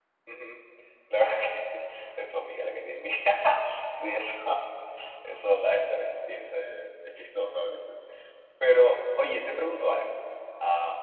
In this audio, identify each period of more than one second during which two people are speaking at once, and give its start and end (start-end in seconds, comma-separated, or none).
none